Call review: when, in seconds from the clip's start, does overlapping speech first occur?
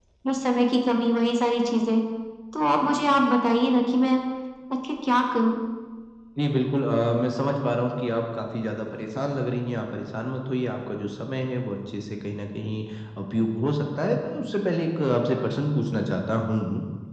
none

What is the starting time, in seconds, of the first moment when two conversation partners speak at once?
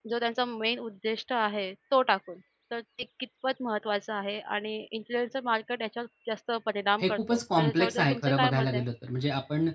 7 s

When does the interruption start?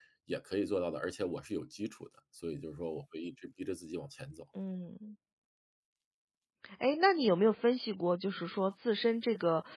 none

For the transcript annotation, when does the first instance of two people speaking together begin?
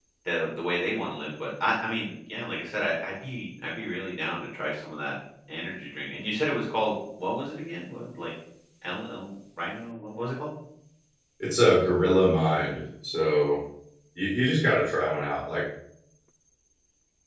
none

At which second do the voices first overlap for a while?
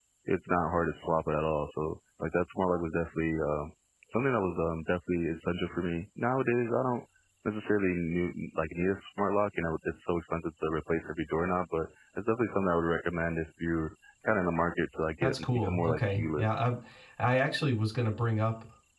15 s

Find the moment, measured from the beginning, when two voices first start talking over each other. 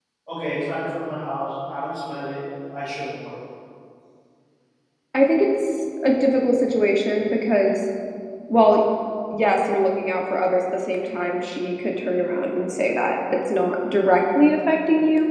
none

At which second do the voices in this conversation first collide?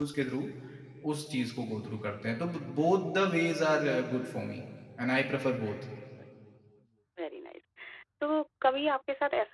none

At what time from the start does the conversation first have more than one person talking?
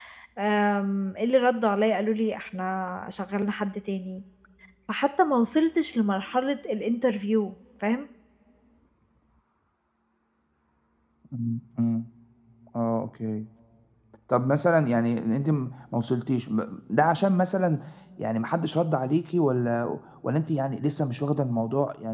none

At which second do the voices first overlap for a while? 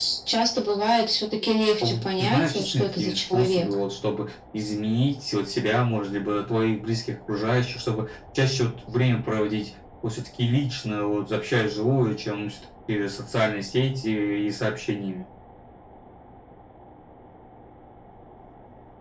2 s

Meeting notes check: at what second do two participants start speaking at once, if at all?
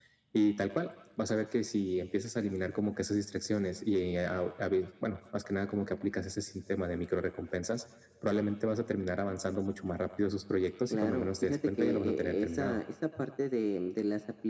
11 s

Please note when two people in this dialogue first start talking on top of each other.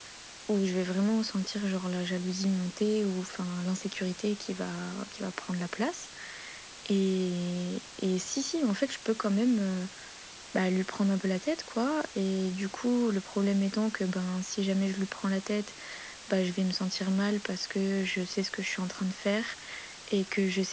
none

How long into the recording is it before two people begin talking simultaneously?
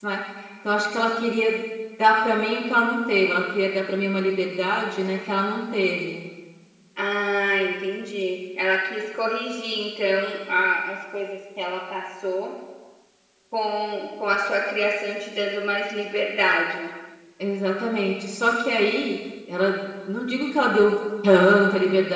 none

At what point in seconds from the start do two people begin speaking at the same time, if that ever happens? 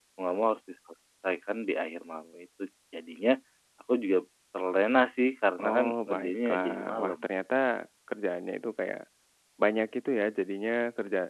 6 s

